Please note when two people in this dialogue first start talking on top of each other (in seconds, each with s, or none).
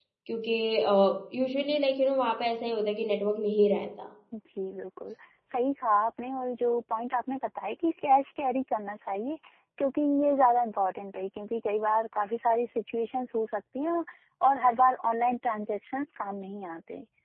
none